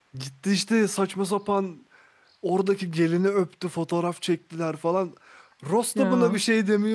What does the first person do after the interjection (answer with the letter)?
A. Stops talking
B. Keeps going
B